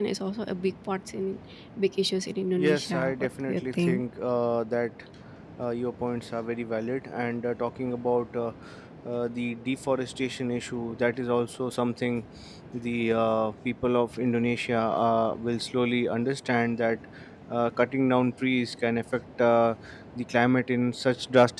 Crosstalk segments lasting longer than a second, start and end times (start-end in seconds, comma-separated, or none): 2.5-4.0